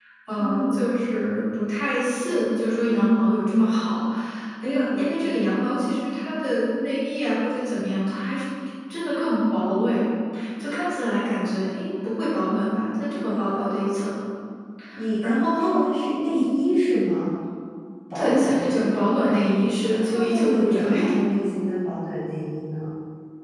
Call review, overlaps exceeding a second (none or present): present